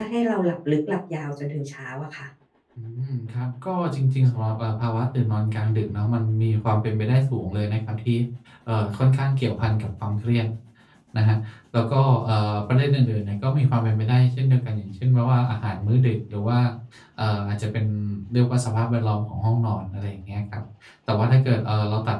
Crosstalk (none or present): none